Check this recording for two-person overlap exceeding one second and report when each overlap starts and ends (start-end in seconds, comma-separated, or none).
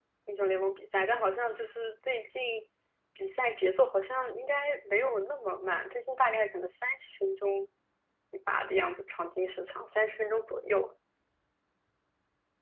none